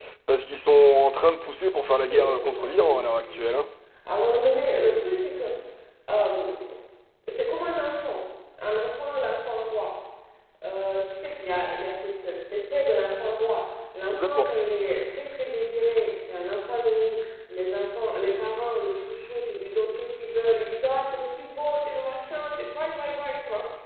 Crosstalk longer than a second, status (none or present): present